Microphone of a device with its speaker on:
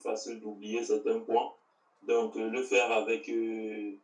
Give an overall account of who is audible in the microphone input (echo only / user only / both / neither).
echo only